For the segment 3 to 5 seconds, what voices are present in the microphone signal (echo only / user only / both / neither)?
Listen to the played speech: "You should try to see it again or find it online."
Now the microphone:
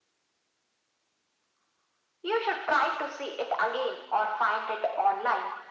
echo only